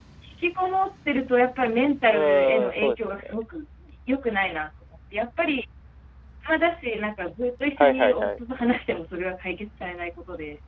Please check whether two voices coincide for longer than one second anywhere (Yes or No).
Yes